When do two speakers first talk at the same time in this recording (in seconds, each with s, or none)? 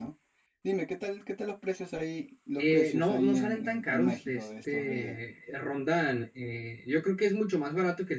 2.5 s